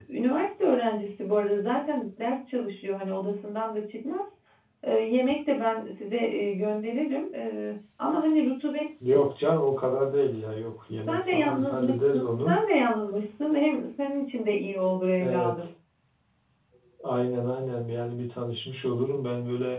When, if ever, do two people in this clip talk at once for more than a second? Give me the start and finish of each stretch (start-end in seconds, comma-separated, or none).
11.1-12.6